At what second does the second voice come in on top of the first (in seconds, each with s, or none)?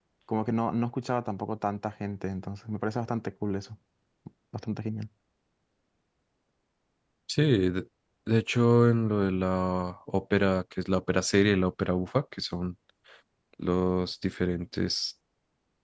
none